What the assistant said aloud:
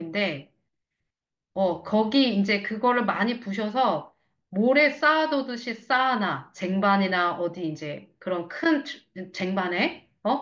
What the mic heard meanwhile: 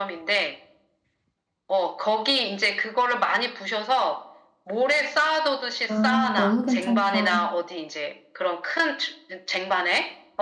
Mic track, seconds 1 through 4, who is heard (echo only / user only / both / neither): echo only